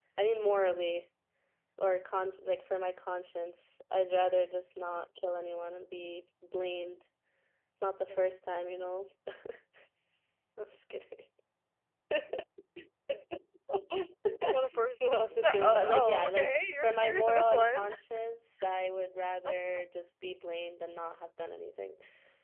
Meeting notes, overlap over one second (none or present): present